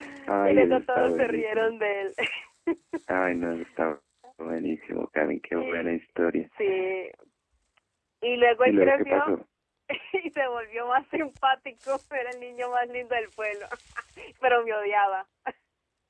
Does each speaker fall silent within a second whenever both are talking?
No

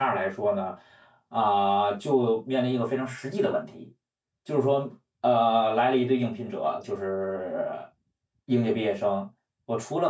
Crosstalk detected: No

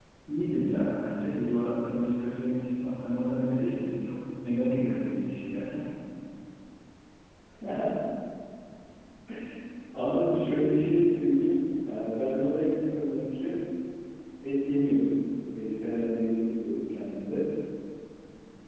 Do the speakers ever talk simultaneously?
No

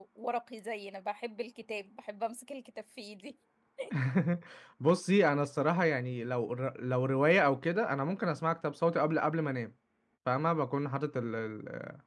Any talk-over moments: No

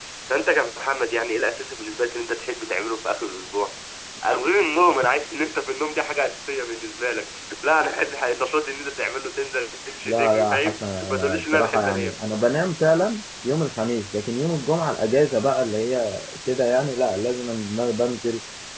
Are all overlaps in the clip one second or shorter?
No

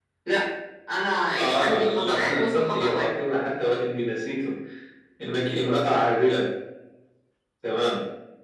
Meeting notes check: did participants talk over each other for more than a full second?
Yes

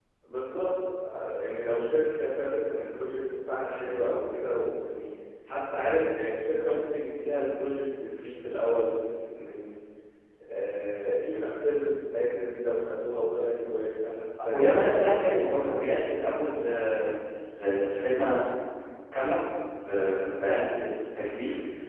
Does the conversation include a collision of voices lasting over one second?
Yes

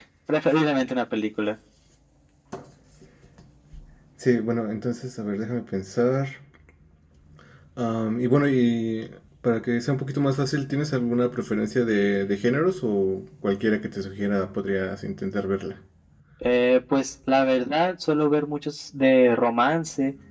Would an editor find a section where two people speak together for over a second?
No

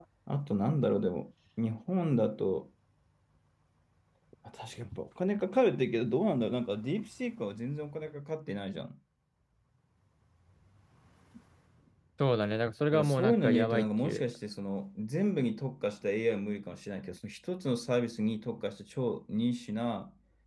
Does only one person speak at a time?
No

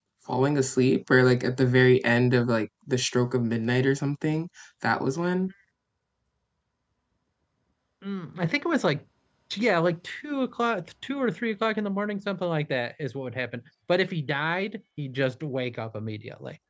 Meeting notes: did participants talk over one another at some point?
No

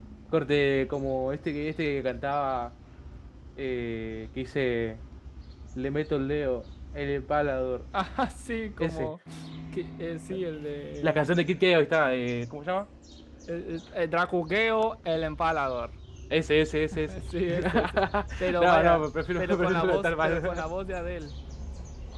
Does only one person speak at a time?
No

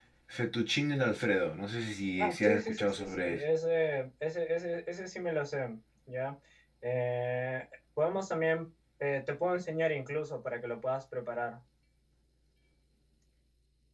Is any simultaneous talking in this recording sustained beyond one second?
Yes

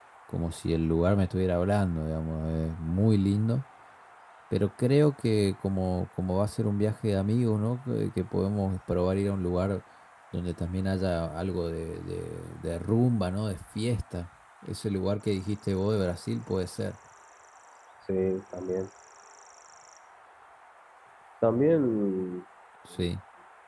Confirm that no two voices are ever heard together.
Yes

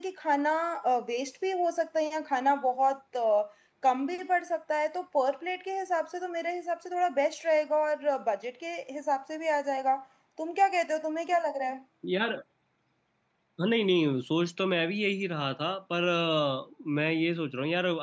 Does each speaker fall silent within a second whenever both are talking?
Yes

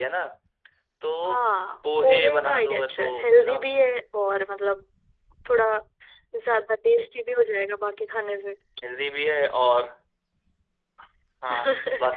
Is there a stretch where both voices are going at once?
Yes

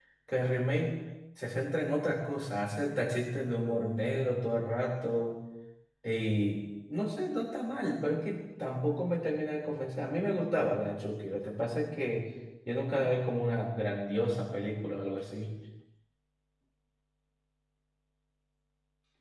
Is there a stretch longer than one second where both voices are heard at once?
No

